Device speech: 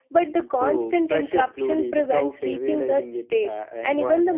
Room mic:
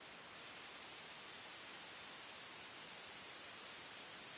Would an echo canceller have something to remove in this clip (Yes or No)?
No